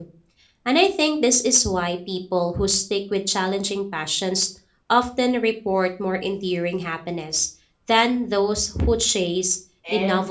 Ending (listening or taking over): taking over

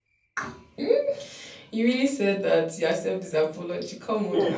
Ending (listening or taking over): taking over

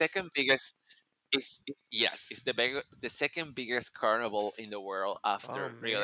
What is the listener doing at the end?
taking over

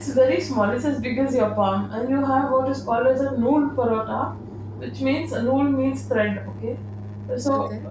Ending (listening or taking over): listening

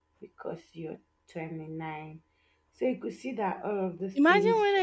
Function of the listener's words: taking over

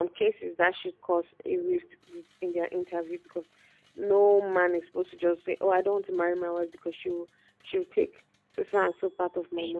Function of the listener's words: taking over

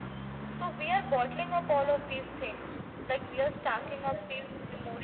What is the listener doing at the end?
listening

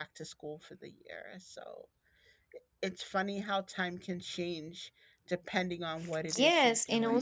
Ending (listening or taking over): taking over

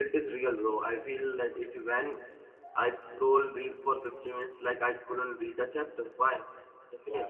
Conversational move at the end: taking over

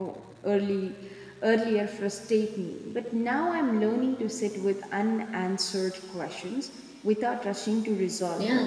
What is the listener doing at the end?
taking over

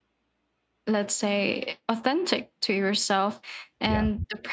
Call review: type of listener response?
listening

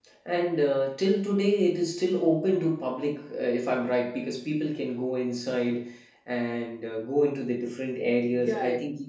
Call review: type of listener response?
taking over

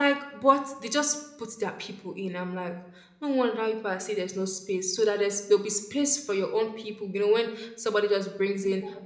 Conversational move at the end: listening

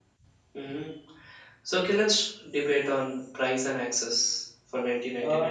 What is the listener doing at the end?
taking over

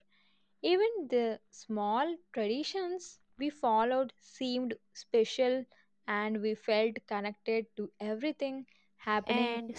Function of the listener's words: taking over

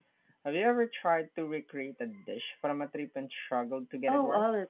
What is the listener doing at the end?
taking over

